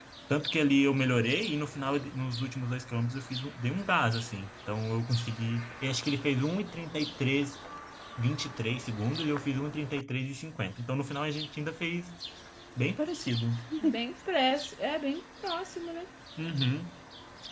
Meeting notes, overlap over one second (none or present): none